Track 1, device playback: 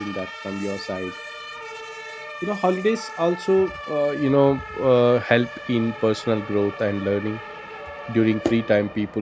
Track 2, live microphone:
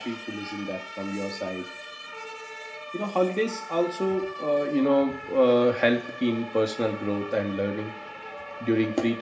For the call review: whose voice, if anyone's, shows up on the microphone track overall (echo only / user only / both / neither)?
echo only